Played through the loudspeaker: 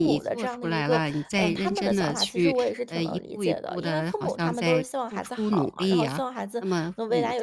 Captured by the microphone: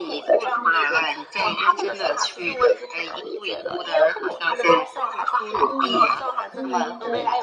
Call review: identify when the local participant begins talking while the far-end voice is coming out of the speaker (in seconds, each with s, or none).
5.6 s